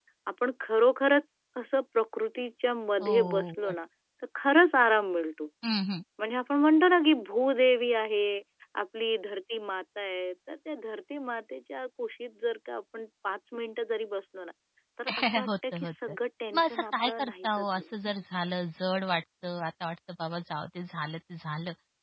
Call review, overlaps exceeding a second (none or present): present